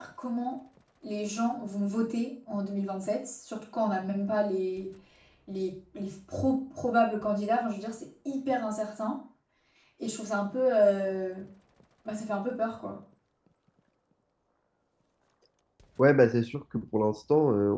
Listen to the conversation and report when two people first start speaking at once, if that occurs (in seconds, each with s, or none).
none